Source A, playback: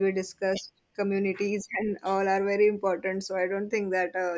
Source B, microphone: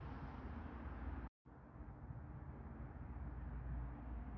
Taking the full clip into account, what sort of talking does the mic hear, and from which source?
neither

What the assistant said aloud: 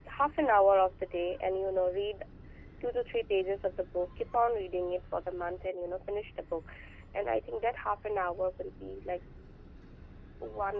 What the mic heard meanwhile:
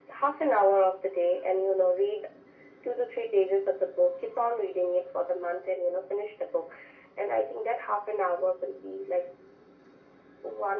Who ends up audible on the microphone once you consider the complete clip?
echo only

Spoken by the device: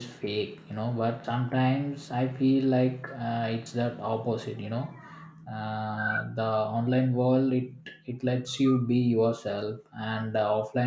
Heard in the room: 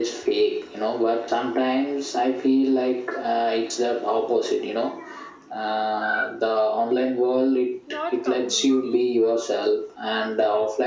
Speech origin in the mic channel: both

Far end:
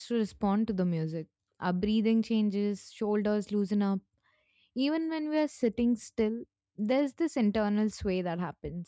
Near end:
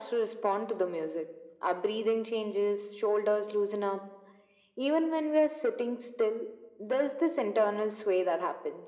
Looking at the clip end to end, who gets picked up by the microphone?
echo only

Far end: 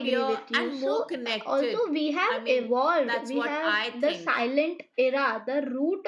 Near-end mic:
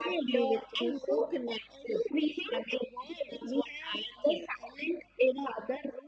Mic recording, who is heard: echo only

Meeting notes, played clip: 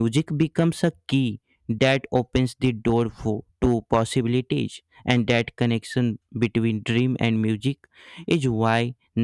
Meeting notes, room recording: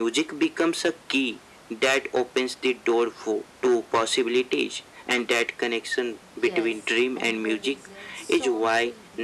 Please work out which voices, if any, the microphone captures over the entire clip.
both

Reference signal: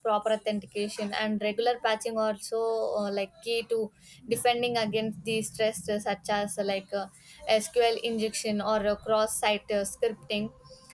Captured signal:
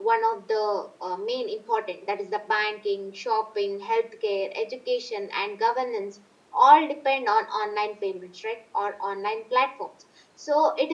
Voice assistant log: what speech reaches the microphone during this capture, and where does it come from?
user only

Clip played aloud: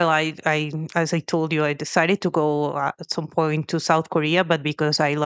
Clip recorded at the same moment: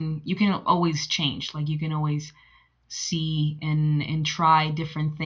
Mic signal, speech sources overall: user only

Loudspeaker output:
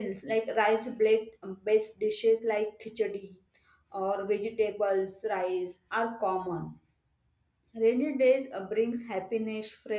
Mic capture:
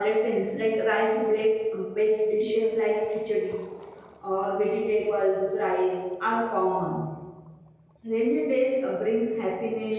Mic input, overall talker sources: both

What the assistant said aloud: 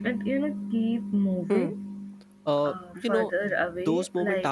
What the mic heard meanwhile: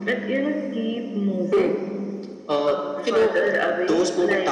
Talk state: echo only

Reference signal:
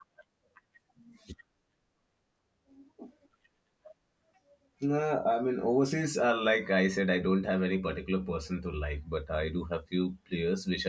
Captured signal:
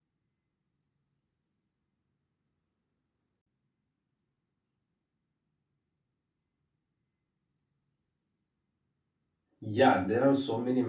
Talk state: user only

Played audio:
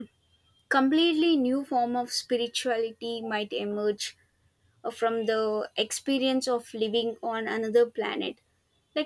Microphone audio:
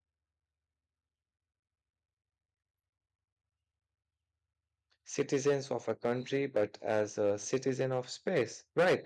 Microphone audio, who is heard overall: user only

